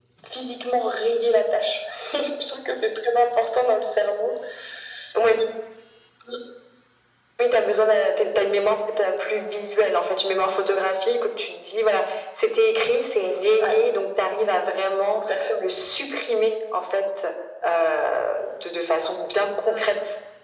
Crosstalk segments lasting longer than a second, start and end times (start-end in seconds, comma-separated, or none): none